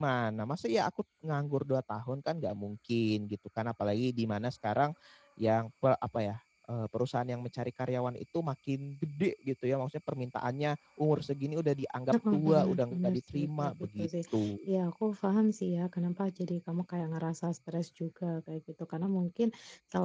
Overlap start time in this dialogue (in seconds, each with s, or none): 12.1 s